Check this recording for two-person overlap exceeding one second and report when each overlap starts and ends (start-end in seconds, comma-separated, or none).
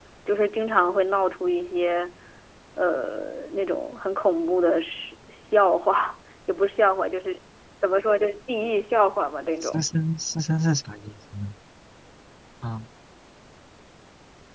none